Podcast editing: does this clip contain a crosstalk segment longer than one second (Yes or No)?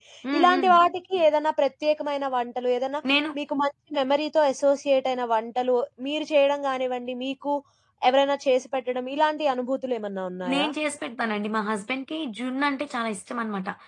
No